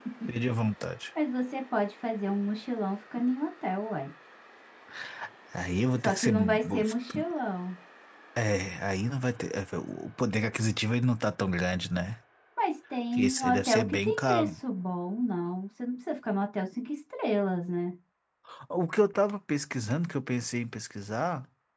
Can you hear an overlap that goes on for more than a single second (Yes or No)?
Yes